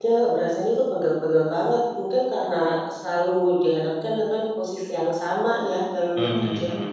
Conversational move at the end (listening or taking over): taking over